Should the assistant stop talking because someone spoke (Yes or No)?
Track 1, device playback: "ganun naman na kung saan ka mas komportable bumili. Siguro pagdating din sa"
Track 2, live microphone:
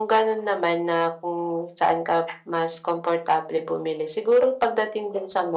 No